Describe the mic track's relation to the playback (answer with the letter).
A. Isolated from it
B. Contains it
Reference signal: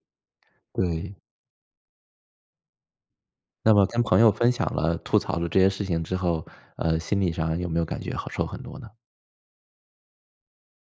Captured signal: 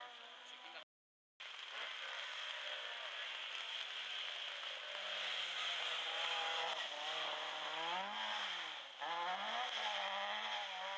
A